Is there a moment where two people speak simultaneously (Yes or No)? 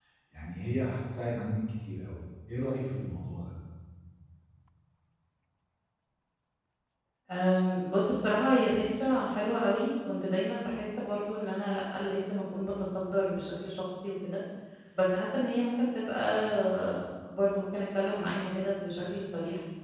No